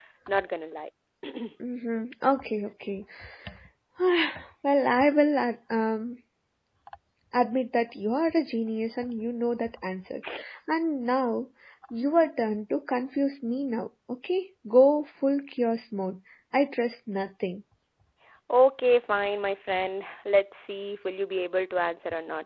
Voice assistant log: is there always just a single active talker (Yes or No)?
Yes